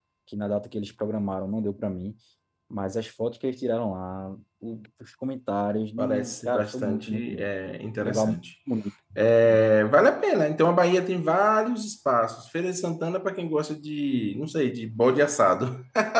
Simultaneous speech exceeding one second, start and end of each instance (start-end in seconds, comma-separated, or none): 6.0-7.5